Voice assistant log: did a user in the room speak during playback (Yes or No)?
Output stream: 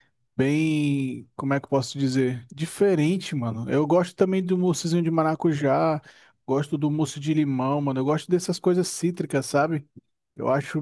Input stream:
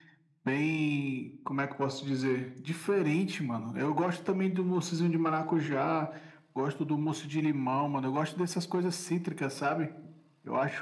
No